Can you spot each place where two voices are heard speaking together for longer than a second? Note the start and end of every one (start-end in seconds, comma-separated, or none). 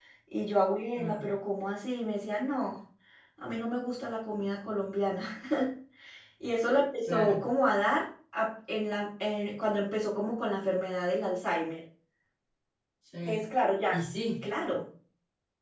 none